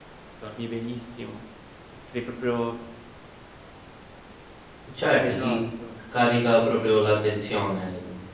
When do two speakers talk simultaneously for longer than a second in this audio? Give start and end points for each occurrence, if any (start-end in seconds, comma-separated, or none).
none